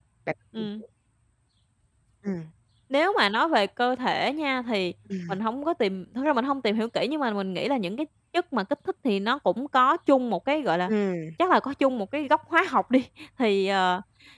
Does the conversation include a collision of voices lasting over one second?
No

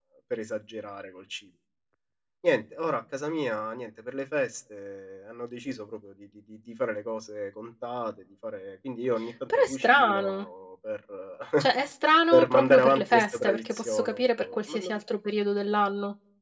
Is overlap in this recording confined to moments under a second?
No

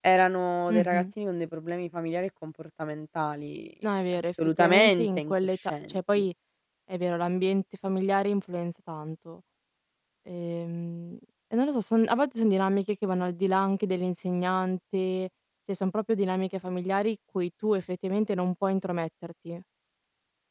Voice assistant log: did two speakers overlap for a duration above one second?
Yes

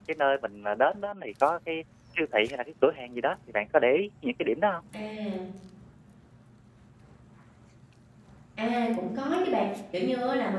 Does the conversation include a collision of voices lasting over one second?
No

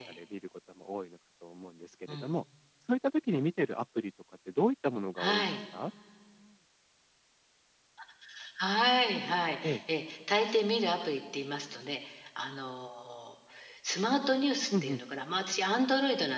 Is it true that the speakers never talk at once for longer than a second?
Yes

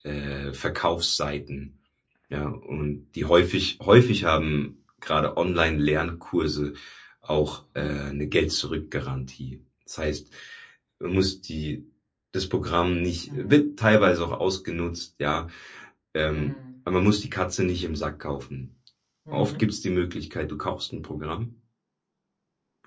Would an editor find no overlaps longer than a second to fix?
Yes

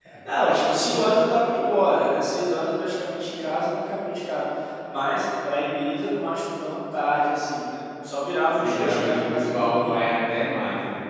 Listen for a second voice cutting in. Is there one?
Yes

